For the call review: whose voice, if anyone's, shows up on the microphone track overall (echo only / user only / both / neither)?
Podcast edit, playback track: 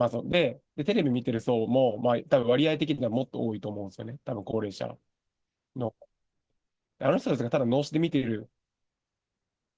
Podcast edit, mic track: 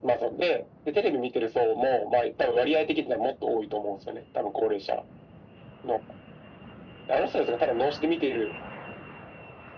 echo only